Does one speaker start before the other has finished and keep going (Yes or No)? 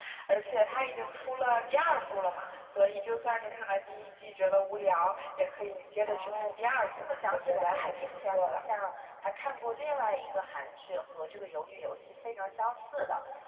Yes